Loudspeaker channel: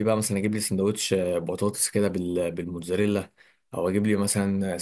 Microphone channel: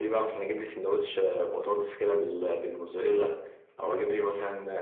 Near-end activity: none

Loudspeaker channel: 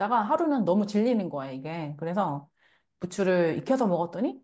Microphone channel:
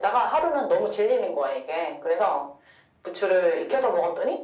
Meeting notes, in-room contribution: none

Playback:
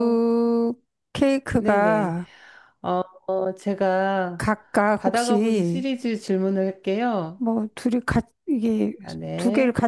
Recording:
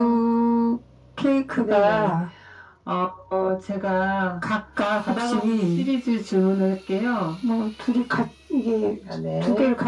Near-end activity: none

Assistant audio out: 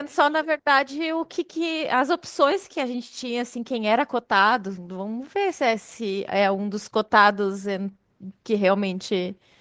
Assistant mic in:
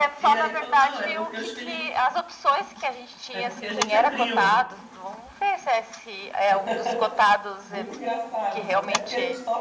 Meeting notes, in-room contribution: present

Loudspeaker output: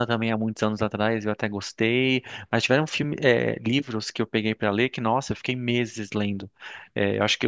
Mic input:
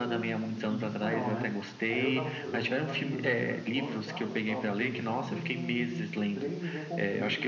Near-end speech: present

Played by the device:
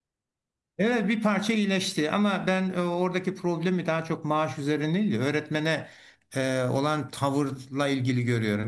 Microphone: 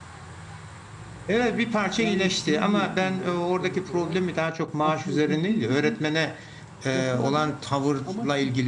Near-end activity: present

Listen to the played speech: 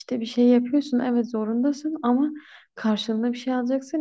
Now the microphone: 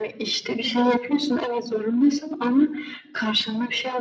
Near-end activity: none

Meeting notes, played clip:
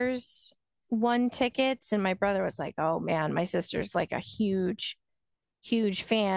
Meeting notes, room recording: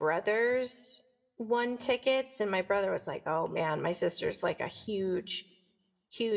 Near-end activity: none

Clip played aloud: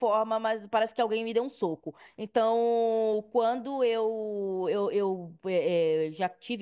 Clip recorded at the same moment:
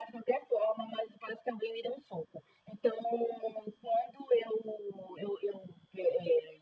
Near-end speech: none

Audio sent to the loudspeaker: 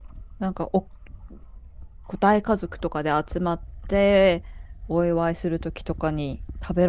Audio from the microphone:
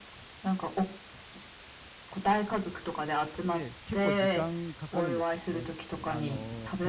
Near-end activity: present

